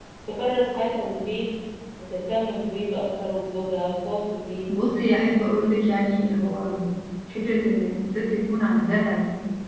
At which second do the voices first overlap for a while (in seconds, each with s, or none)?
none